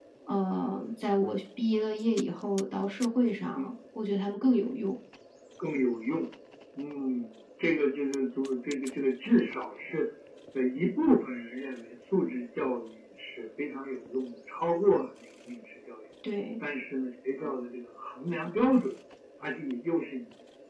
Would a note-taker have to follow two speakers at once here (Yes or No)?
No